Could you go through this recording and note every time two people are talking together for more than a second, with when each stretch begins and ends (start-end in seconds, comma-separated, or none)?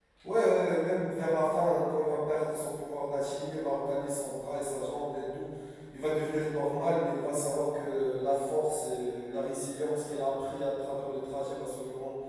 none